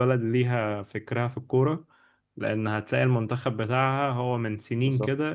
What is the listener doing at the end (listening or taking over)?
listening